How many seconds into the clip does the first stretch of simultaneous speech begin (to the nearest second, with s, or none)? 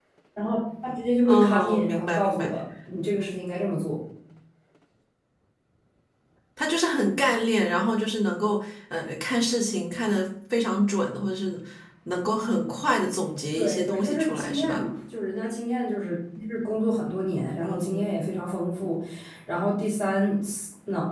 1 s